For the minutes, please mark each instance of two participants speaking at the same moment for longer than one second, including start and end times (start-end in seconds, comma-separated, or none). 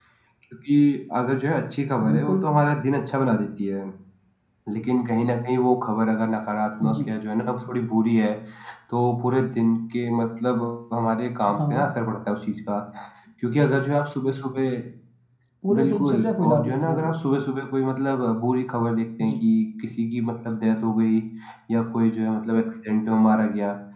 15.7-17.2